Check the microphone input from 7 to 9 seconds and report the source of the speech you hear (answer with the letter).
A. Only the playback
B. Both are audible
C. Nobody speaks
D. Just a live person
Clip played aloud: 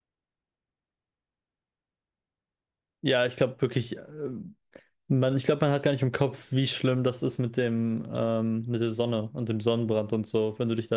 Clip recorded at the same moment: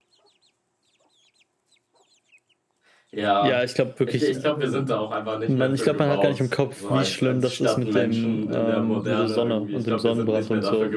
B